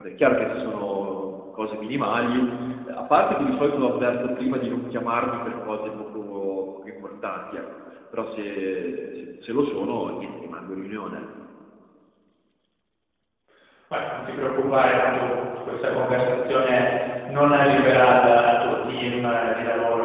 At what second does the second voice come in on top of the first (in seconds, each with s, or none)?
none